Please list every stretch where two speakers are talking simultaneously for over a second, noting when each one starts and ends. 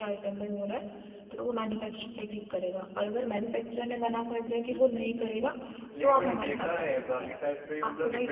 6.0-7.3

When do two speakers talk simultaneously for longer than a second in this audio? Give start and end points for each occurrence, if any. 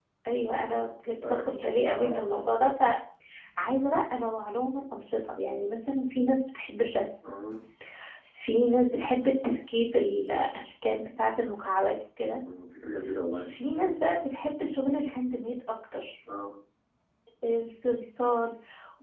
none

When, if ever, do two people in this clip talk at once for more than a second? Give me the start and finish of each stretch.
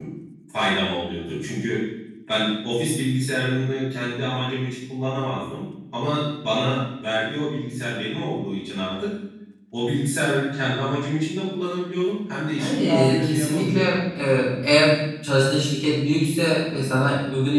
12.6-13.8

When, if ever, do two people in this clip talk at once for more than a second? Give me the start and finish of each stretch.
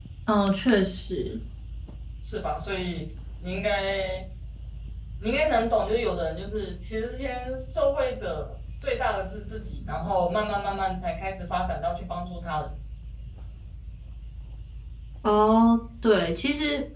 none

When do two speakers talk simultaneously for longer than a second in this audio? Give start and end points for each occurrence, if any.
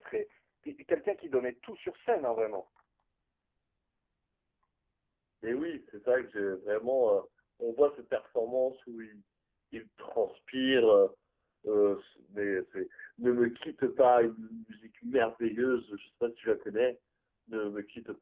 none

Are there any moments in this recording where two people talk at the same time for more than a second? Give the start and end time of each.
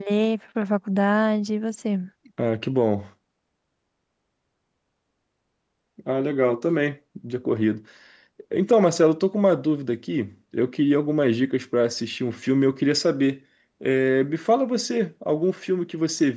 none

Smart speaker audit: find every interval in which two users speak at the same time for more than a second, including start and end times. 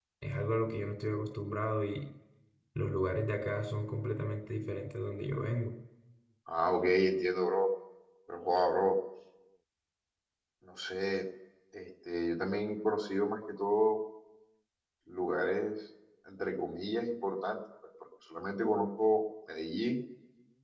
none

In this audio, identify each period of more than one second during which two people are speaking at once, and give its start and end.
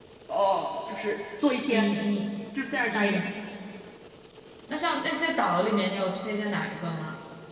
none

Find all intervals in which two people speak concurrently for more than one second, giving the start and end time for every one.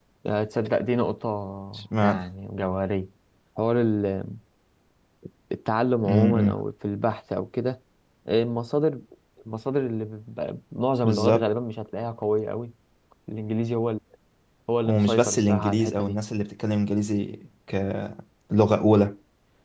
14.9-16.2

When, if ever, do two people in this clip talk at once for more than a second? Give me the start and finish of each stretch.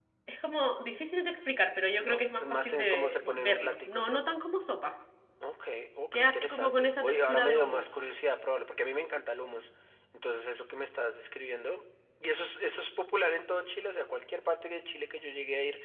2.0-4.3, 6.1-7.9

